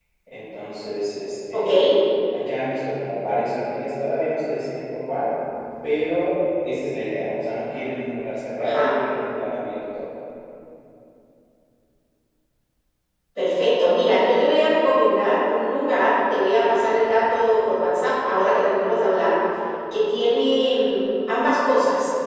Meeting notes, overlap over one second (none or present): none